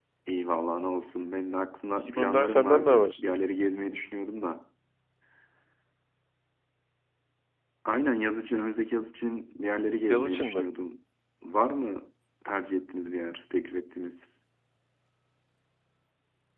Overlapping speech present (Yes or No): Yes